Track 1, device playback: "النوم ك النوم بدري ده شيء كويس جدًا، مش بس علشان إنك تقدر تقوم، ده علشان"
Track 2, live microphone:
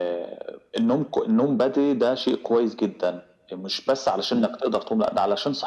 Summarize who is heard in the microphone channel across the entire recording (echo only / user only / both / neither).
echo only